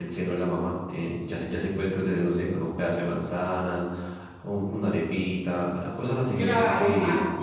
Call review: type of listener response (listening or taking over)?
taking over